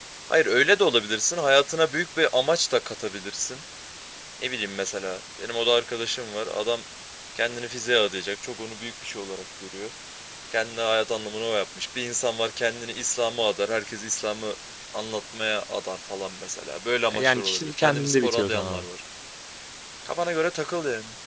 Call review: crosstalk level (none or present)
present